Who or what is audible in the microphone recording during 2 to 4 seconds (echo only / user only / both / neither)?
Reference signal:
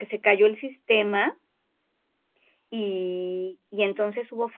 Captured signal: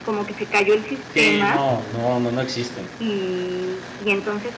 both